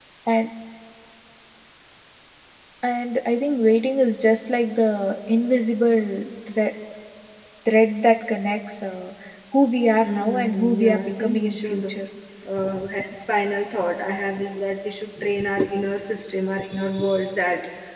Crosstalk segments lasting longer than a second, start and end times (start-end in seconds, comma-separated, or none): 10.0-11.9